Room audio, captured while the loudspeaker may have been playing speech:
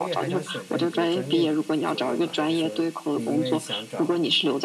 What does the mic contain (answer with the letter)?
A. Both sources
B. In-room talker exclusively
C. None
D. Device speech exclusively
A